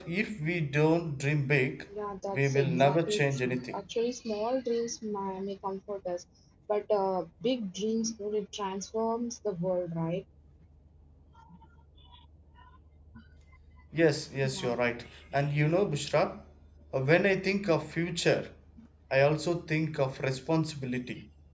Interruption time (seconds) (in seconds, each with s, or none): 2.3 s